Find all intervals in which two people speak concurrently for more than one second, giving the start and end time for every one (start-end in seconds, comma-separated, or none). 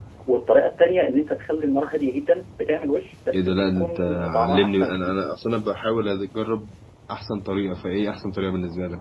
3.3-5.2